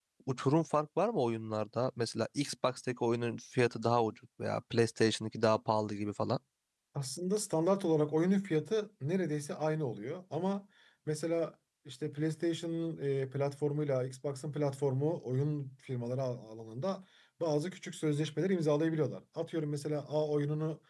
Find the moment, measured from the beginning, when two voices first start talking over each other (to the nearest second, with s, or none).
none